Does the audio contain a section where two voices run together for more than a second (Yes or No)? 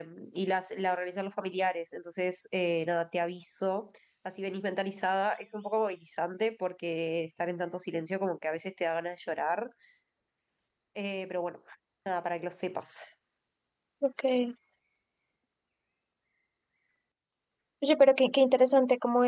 No